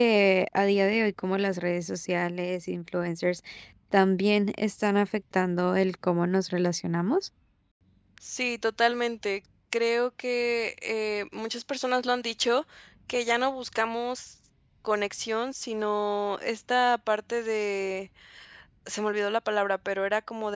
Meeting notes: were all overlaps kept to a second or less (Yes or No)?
Yes